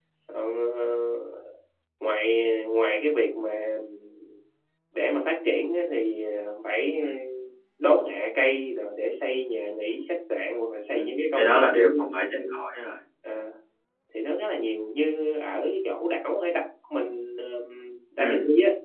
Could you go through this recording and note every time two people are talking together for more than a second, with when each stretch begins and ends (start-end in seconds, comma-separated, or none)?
10.9-12.4